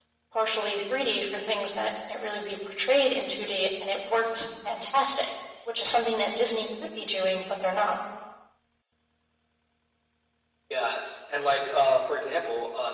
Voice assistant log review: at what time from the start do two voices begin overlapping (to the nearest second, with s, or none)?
none